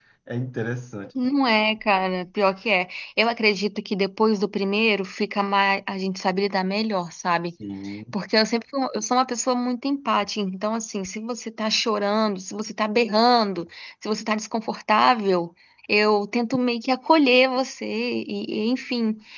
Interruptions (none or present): none